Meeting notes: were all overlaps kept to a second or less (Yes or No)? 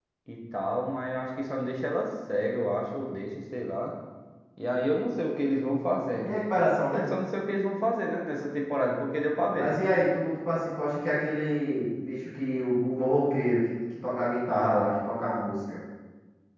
Yes